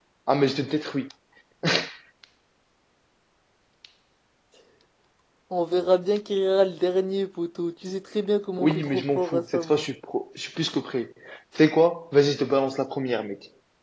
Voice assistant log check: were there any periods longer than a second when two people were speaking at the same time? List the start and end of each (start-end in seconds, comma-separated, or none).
8.6-9.8